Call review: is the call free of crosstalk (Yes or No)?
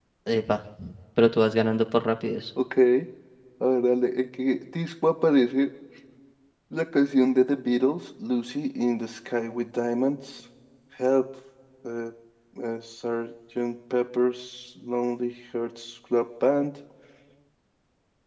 Yes